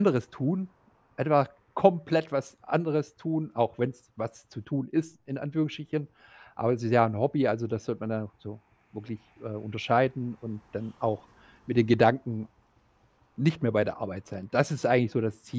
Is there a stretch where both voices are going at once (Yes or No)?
No